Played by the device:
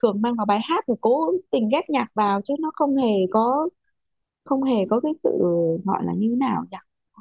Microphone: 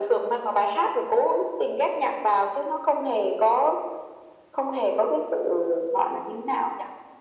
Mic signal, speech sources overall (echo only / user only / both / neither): echo only